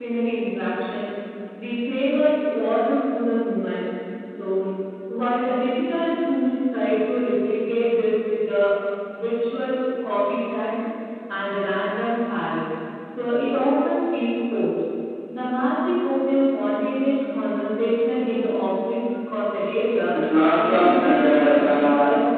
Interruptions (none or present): present